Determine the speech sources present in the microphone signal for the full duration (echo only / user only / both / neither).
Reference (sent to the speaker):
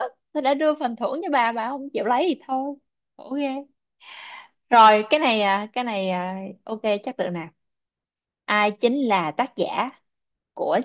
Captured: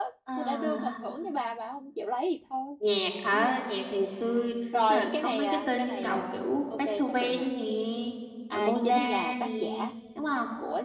both